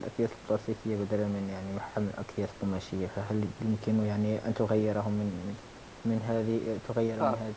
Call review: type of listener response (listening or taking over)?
listening